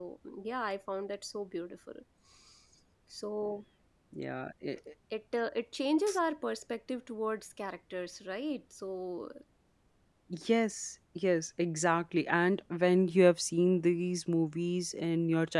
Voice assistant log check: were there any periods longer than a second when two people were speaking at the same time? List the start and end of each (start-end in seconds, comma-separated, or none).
none